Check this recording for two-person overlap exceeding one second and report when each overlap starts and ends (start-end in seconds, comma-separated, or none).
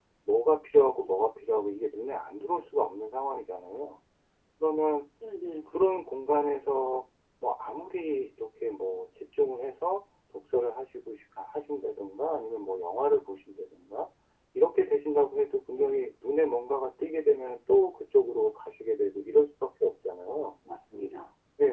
none